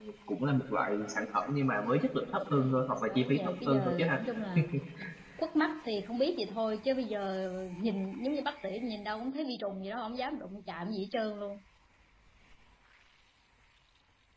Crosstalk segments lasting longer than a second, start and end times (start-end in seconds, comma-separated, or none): 2.5-4.2